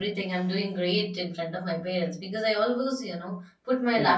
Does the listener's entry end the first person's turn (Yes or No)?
No